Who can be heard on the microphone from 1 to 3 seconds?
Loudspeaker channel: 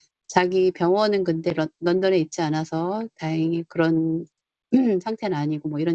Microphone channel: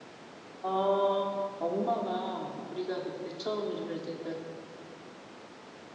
user only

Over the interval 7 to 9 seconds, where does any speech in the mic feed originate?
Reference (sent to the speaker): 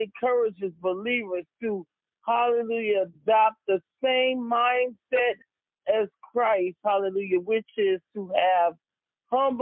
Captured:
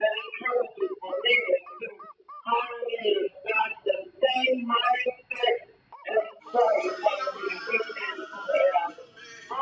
both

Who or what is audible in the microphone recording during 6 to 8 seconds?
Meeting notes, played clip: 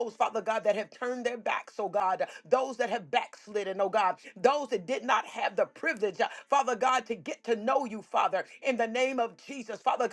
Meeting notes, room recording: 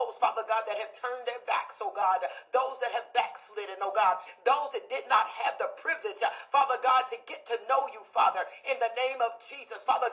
echo only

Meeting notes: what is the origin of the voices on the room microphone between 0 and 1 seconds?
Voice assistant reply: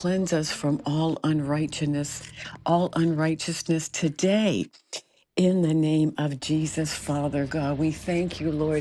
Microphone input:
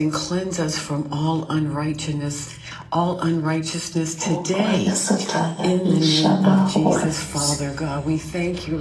echo only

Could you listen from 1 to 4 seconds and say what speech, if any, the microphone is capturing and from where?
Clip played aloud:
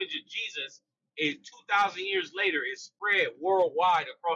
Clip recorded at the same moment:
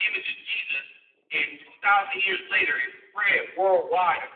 echo only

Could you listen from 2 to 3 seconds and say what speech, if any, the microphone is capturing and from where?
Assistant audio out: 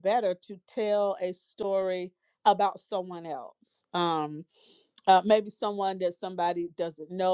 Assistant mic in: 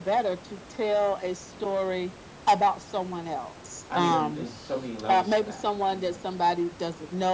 echo only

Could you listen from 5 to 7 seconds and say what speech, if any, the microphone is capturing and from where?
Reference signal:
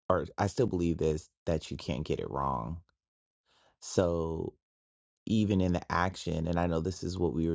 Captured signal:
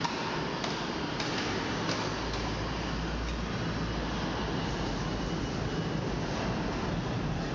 neither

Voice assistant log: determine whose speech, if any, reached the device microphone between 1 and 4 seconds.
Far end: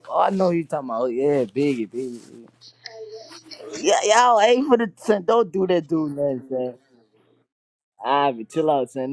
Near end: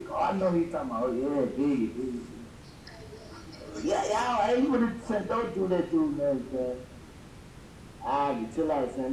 echo only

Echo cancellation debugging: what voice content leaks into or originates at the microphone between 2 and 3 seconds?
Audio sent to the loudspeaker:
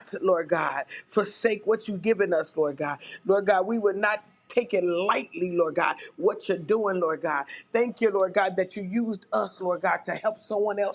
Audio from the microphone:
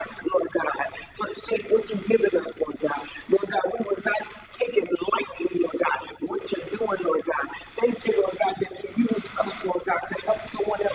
echo only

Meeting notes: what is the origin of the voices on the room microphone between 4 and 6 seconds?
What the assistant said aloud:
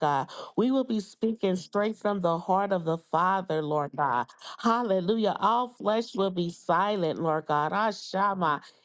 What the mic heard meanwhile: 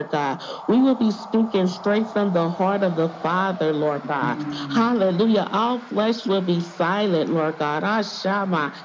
both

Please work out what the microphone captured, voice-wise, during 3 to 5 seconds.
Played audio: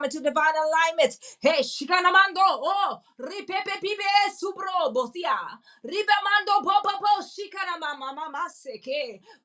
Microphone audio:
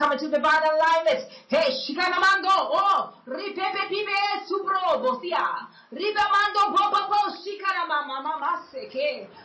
echo only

